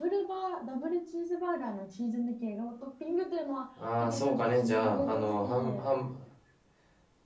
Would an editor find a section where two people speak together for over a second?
Yes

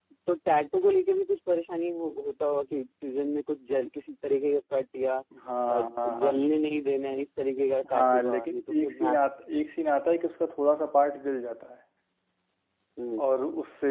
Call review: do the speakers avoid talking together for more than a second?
No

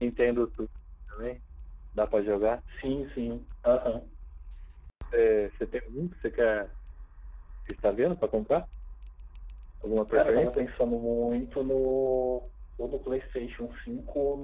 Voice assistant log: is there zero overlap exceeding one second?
Yes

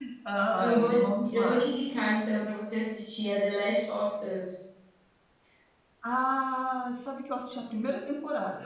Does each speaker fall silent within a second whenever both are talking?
Yes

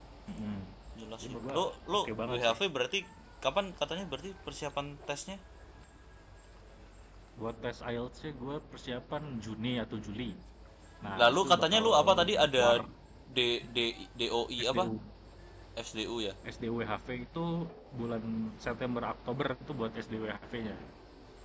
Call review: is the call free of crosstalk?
No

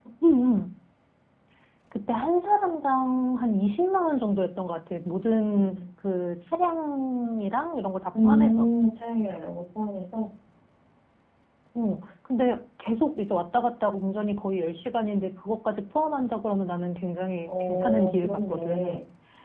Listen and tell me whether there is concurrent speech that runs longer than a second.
Yes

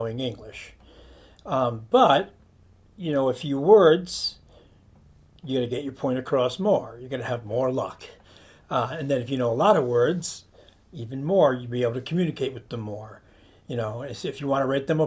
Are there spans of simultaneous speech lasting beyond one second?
No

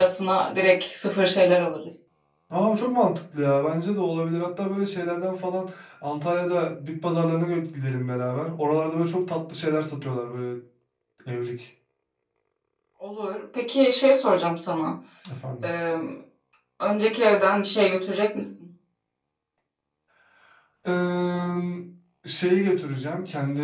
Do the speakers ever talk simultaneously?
No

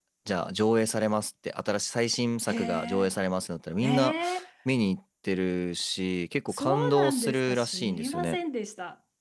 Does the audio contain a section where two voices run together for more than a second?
Yes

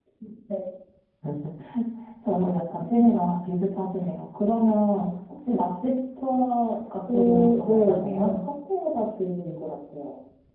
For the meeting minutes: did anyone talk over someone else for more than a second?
Yes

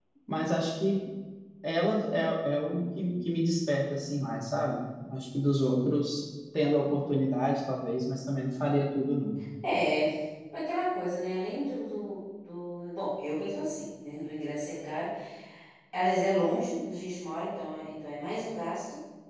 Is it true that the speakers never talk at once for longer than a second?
Yes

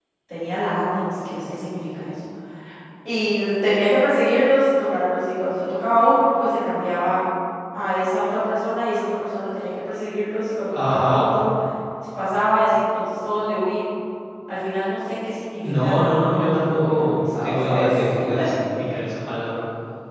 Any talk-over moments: Yes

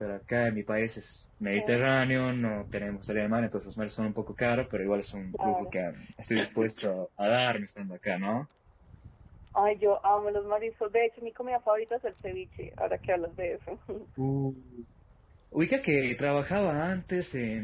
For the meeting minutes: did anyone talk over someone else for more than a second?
No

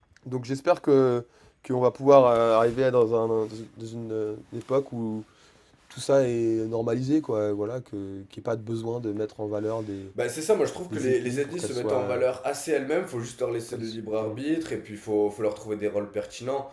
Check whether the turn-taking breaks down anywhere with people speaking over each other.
Yes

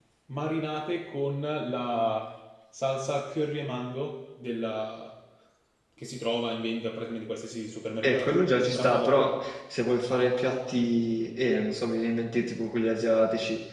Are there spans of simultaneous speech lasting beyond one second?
Yes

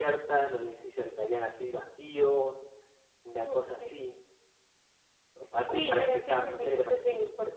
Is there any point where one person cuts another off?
Yes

